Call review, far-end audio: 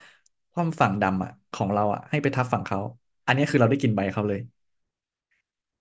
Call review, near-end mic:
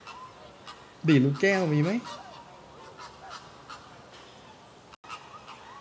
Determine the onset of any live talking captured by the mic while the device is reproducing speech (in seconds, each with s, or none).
1.1 s